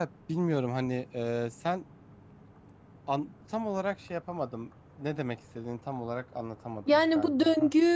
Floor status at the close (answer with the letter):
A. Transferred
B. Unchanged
A